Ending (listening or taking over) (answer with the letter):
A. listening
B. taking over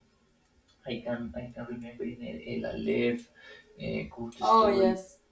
A